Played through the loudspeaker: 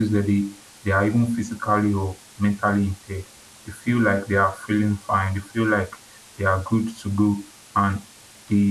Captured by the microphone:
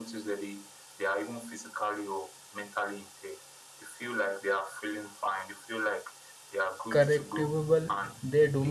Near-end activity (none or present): present